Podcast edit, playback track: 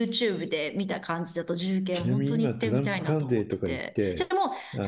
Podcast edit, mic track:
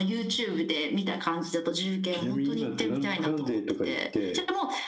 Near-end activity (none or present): none